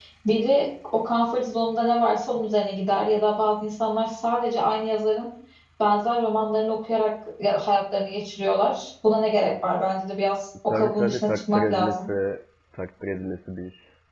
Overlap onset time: 11 s

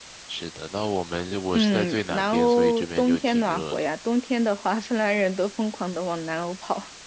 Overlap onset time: 2 s

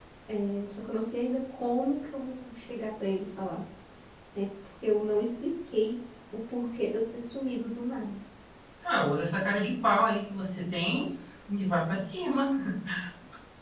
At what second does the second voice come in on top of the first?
none

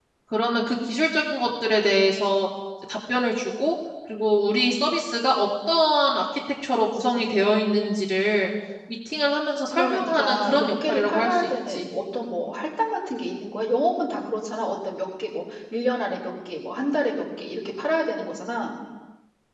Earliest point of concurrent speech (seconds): 10 s

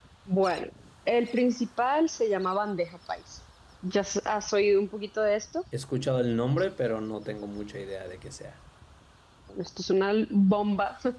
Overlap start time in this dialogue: none

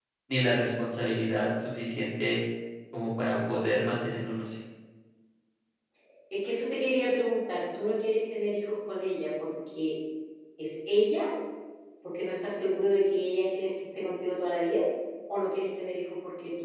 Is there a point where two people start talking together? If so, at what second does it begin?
none

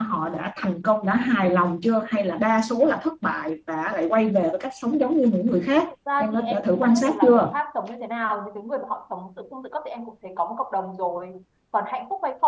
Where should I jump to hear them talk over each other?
6 s

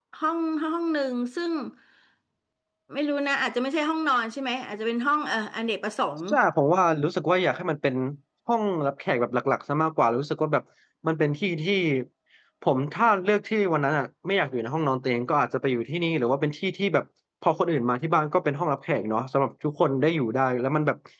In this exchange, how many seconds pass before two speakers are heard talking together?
none

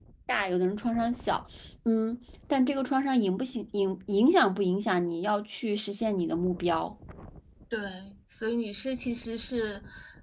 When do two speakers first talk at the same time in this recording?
none

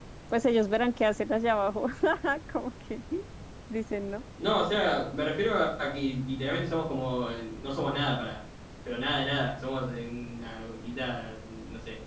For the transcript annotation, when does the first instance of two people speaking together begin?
none

